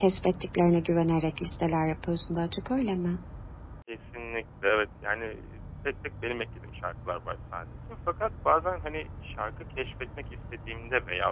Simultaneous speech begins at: none

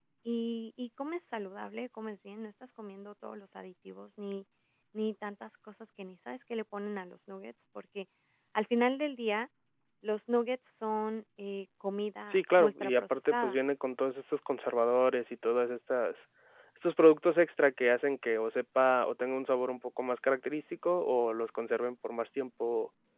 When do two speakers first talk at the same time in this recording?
12.3 s

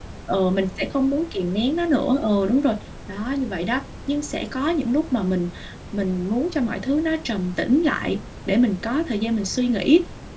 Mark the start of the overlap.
none

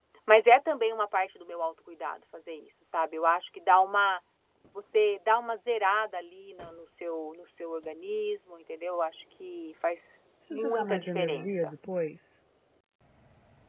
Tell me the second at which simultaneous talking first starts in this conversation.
10.4 s

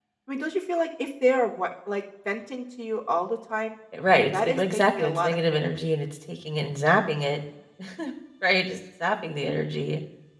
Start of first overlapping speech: 4.3 s

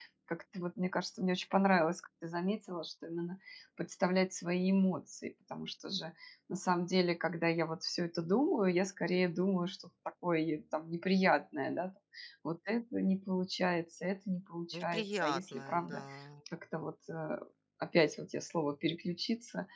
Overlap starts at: 14.7 s

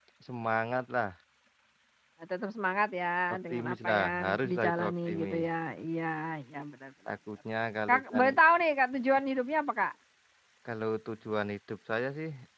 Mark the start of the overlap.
3.3 s

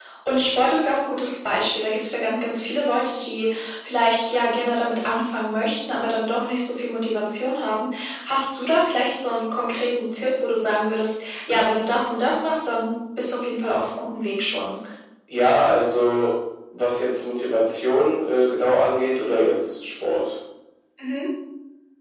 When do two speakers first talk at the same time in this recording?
none

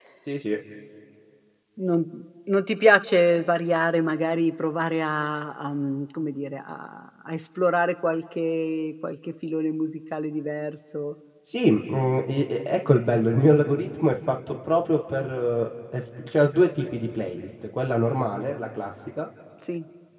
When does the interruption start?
none

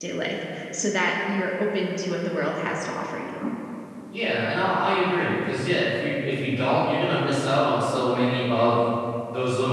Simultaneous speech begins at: none

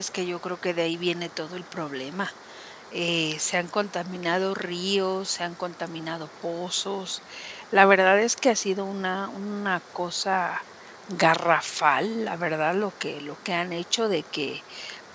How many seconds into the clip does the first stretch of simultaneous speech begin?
none

